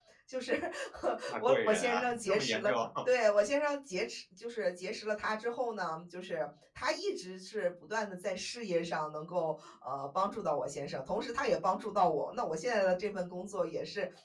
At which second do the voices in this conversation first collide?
1.5 s

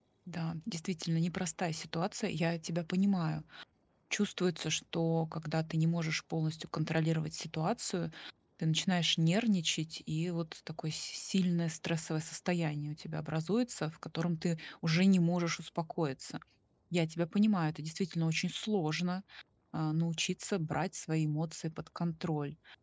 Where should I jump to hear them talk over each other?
none

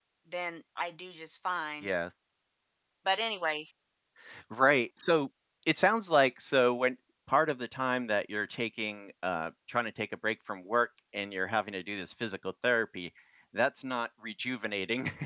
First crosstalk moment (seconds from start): none

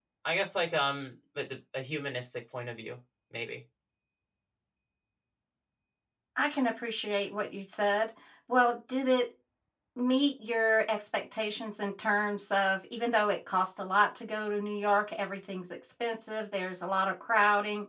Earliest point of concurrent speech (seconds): none

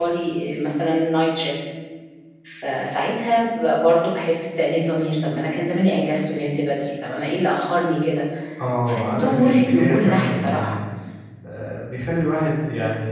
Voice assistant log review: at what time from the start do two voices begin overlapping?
8.9 s

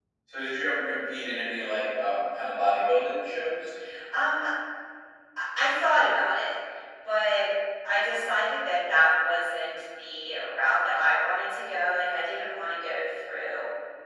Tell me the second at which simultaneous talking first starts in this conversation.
none

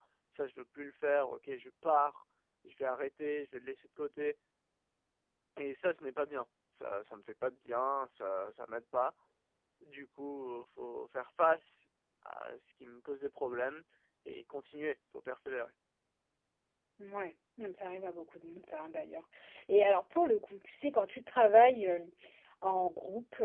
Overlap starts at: none

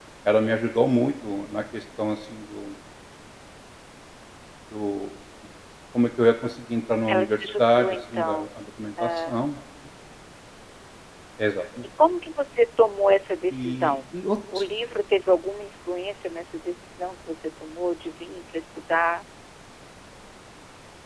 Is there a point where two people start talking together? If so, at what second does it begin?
7.1 s

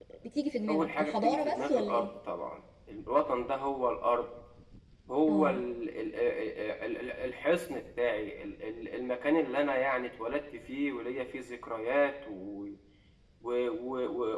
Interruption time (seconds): 0.7 s

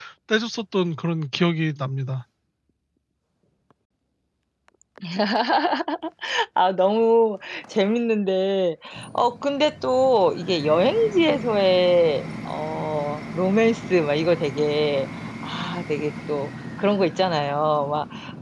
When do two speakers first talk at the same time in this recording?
none

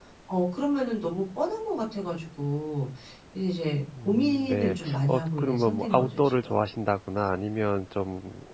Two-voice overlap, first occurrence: 4.0 s

